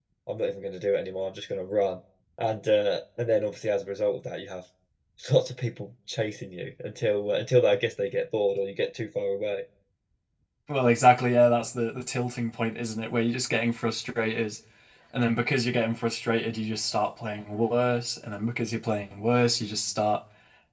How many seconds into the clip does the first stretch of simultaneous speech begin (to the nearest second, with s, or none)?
none